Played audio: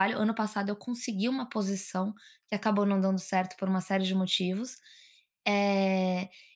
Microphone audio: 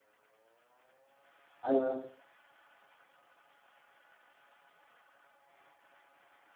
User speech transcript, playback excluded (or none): Hã.